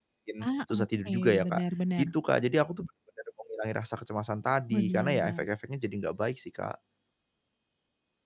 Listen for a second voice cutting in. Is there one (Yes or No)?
Yes